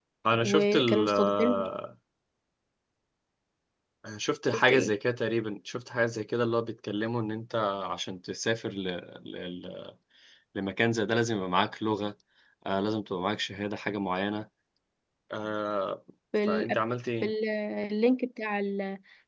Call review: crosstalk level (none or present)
present